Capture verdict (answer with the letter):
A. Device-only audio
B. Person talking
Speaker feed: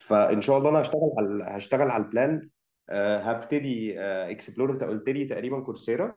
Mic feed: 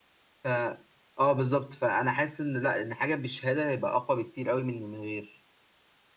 B